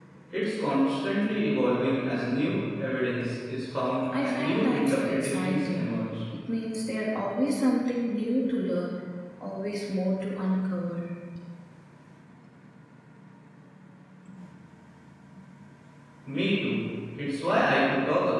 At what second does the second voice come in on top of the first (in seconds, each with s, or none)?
4.1 s